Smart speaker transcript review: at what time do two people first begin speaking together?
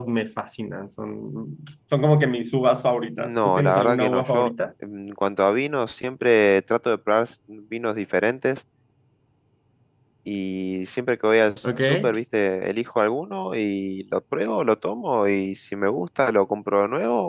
3.2 s

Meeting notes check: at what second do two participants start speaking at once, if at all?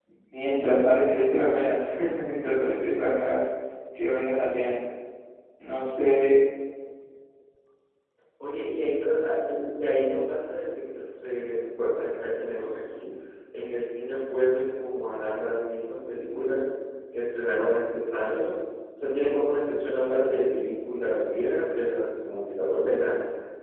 none

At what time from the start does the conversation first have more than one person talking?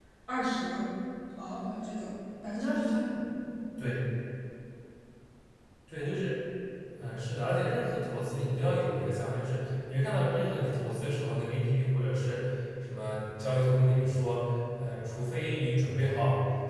none

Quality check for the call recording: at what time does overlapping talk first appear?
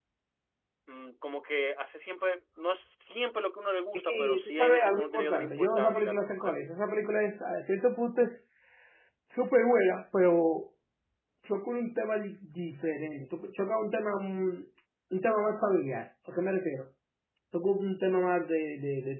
4.0 s

